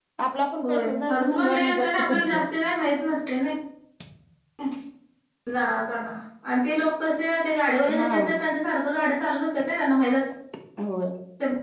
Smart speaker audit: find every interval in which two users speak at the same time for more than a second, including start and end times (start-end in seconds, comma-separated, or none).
0.6-2.4